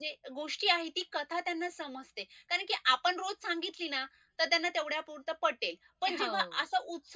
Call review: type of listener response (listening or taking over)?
listening